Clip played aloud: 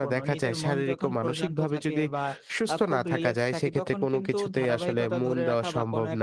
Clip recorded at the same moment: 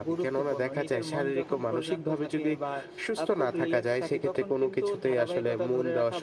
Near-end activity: none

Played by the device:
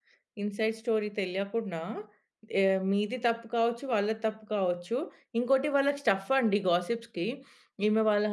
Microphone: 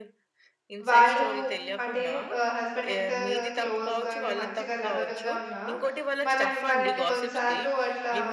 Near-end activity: present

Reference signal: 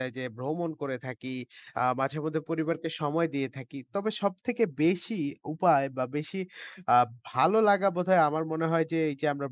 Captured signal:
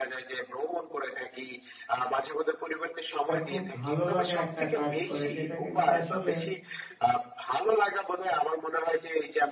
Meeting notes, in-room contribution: present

